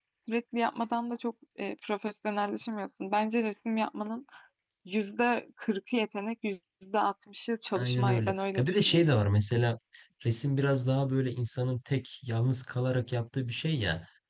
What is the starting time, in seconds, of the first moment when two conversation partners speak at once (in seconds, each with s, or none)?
7.8 s